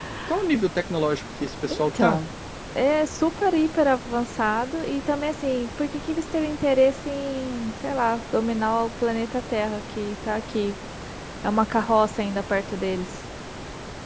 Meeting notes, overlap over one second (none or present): none